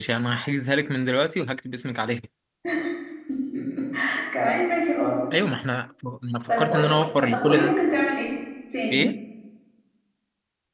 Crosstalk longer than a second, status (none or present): present